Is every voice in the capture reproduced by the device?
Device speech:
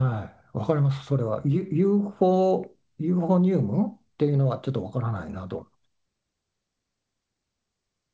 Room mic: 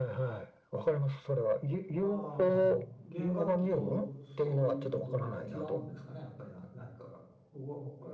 No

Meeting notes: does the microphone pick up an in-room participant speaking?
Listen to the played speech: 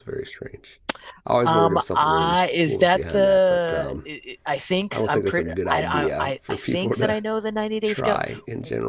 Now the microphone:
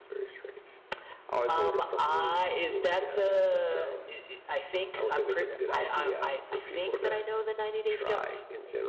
No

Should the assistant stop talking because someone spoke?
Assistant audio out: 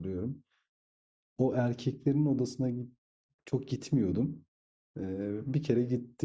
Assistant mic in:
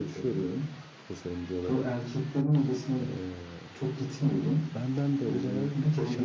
Yes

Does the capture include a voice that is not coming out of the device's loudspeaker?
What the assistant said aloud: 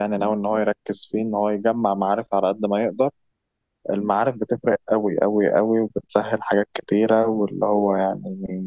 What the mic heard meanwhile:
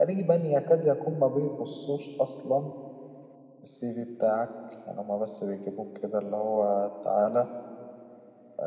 Yes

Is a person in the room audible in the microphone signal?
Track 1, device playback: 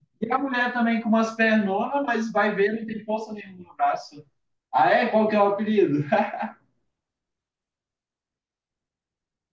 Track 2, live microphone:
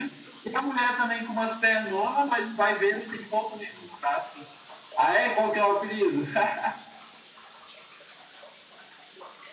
No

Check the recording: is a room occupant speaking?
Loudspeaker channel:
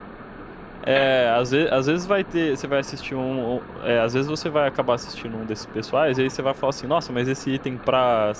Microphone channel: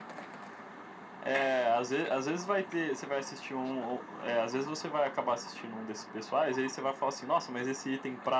No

